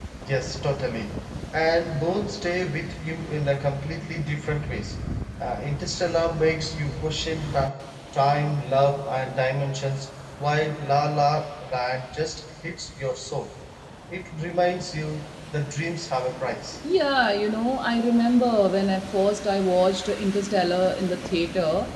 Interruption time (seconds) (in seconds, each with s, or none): none